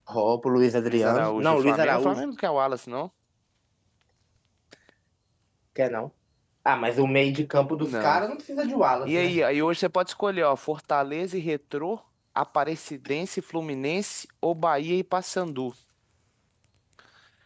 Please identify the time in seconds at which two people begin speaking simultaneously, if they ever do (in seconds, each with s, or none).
0.8 s